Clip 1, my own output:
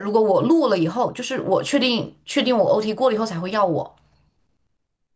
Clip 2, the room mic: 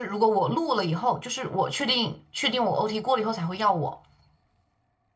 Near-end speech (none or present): none